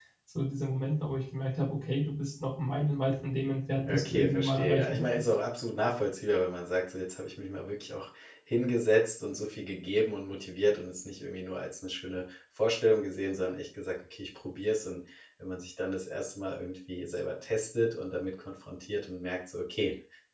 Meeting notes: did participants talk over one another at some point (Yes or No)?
Yes